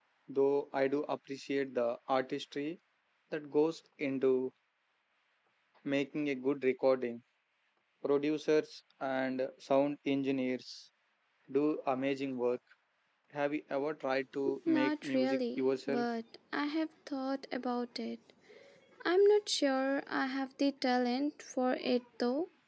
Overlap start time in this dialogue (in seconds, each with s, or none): 14.7 s